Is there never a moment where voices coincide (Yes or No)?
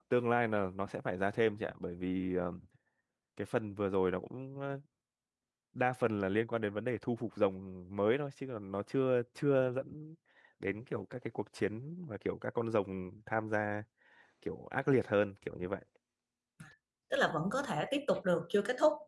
Yes